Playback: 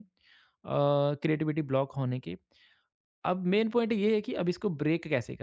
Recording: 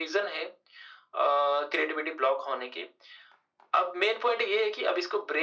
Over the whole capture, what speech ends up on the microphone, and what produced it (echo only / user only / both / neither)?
echo only